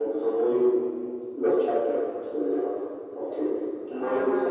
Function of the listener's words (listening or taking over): listening